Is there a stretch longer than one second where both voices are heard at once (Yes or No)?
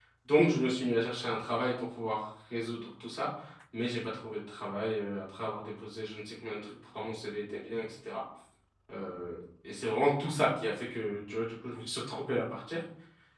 No